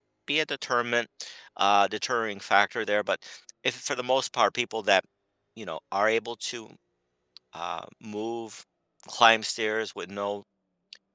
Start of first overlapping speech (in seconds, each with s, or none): none